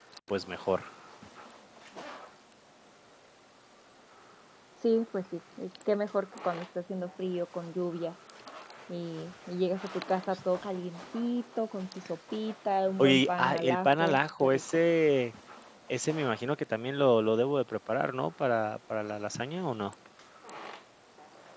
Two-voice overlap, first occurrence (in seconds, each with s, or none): 13.0 s